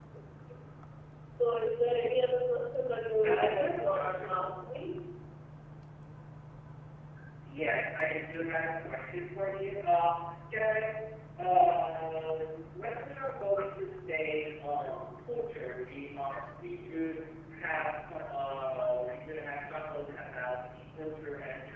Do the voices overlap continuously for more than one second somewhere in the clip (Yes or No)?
Yes